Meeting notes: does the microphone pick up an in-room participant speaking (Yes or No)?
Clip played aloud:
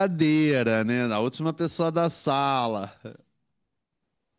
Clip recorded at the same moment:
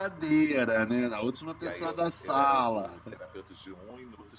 Yes